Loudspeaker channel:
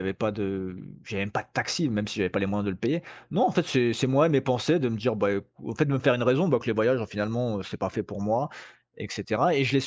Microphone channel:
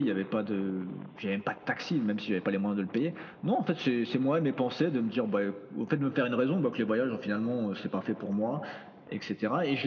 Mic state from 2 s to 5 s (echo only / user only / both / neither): echo only